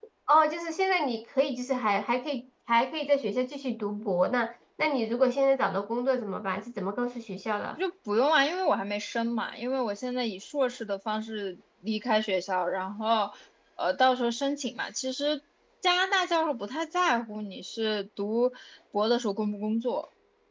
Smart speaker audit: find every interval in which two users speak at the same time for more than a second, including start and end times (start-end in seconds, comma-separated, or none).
none